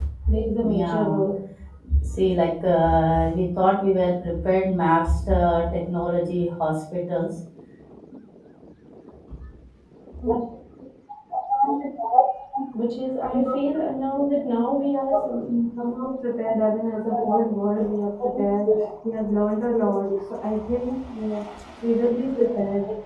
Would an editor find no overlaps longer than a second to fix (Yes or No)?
Yes